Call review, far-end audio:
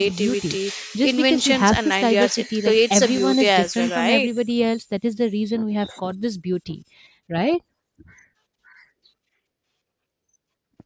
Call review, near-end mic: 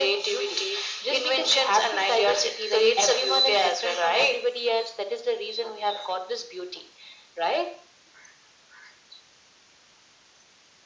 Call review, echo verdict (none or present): present